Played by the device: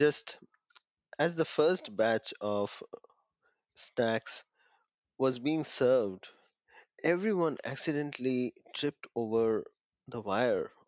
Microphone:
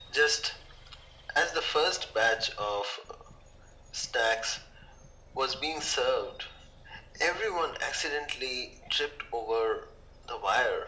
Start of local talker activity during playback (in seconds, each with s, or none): none